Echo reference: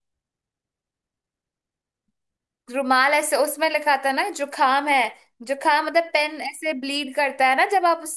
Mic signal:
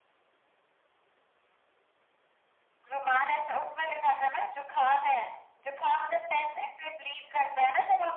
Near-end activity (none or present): none